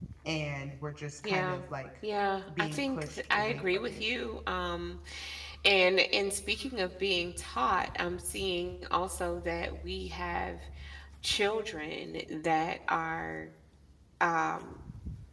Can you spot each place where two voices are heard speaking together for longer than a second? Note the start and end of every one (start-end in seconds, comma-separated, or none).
2.6-4.0